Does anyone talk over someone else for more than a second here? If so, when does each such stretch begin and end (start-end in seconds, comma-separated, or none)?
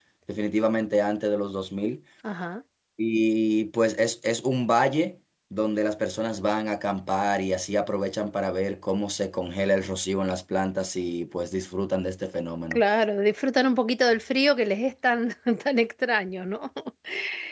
none